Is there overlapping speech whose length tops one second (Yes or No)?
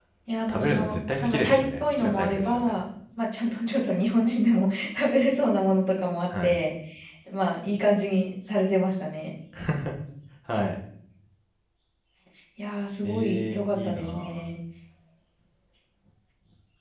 Yes